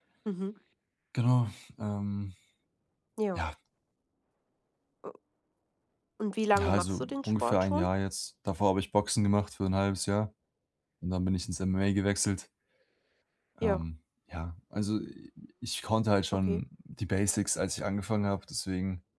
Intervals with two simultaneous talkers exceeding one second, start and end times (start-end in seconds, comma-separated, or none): 6.6-7.9